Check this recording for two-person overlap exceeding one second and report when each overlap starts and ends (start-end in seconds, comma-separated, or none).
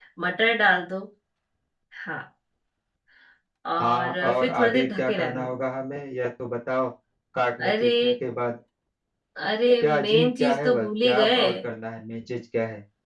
3.8-5.5, 9.8-11.4